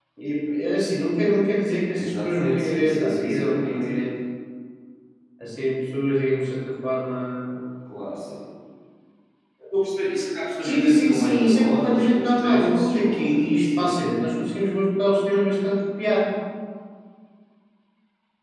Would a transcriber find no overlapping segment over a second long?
No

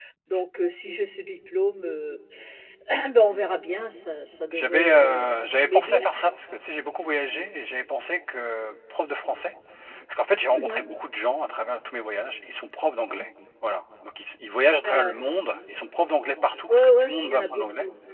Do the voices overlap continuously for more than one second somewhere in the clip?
Yes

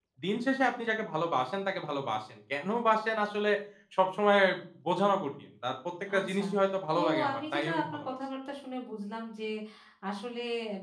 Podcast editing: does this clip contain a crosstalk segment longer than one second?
Yes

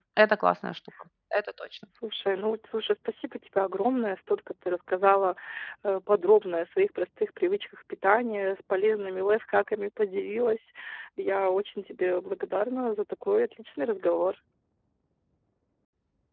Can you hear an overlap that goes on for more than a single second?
No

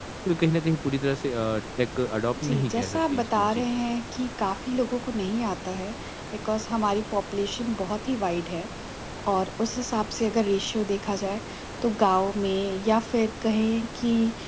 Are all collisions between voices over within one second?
No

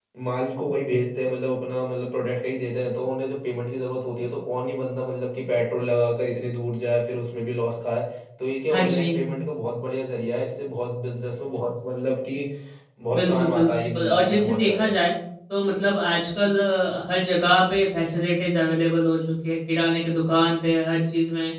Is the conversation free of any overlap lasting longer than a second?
No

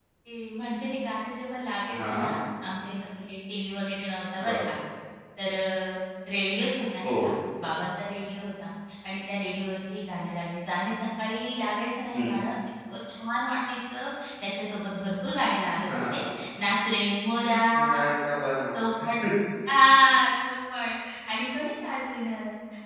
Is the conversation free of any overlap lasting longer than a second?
Yes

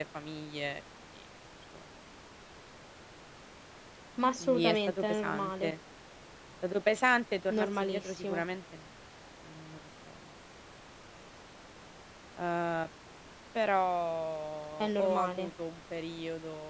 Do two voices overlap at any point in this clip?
Yes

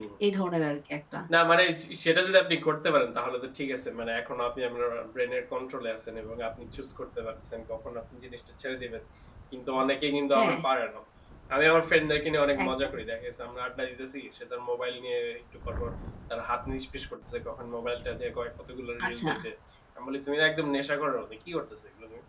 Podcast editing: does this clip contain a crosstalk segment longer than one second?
No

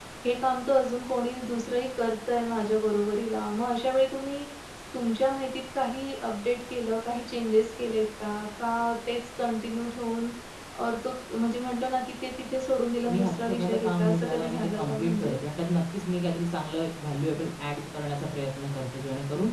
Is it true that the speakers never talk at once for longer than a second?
No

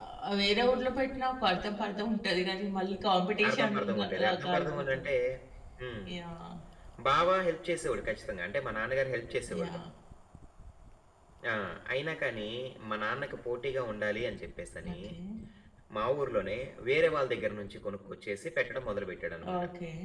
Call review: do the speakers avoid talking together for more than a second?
No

